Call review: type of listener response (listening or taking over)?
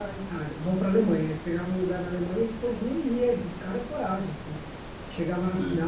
listening